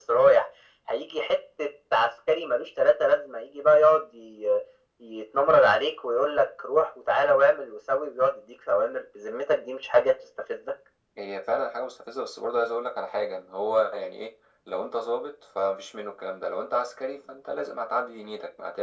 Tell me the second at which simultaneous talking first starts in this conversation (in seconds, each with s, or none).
none